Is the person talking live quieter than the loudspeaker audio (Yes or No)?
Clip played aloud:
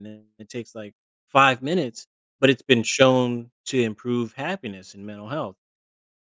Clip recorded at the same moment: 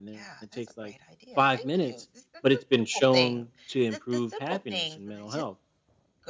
Yes